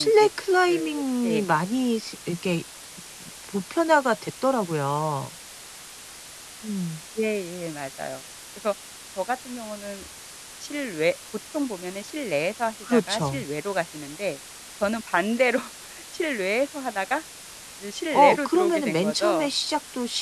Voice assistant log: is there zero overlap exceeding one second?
No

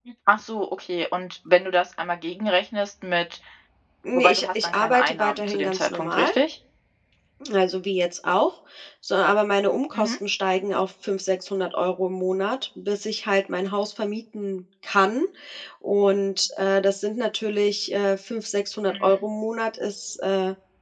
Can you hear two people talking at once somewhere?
Yes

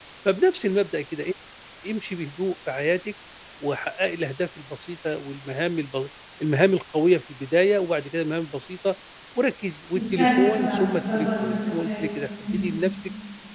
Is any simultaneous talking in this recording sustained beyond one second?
Yes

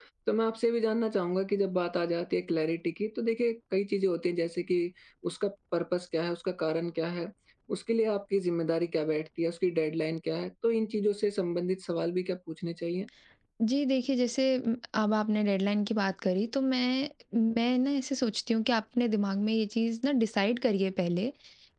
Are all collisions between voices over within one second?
Yes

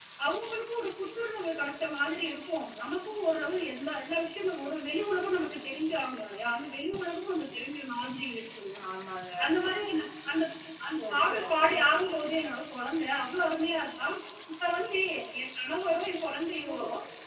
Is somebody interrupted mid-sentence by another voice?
Yes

